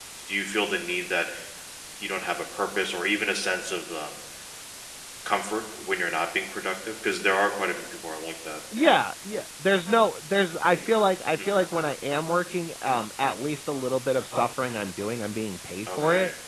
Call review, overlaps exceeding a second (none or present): none